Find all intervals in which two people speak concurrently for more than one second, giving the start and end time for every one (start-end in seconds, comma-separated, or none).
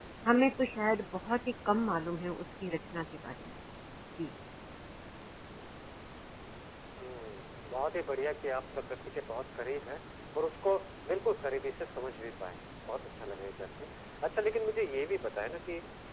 none